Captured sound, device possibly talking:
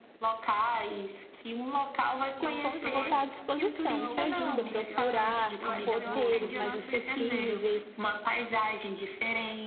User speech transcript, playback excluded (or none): que eu cons- vou estar à disposição. Te ajuda a procurar roteiros mais acessíveis,